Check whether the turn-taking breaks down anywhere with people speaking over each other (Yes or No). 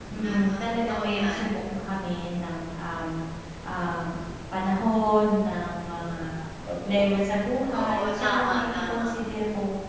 Yes